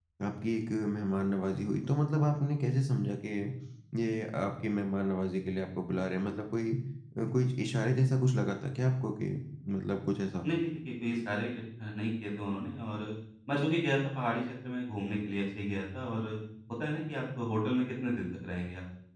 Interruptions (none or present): none